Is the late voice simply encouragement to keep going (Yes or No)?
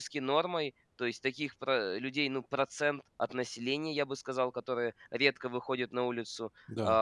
Yes